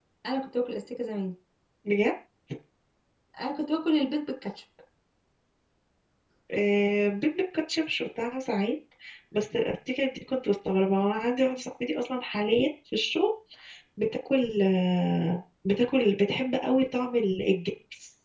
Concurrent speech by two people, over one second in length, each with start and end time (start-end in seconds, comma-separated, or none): none